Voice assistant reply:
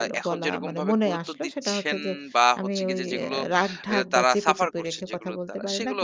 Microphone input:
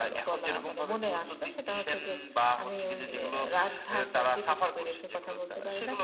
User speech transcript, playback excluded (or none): none